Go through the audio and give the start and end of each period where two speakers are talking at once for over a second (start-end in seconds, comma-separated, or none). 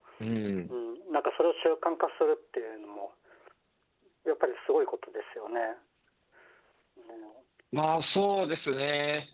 none